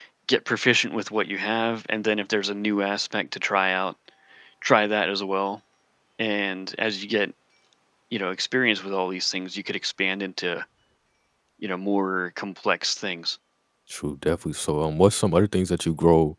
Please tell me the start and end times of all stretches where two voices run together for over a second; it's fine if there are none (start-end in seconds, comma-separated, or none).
none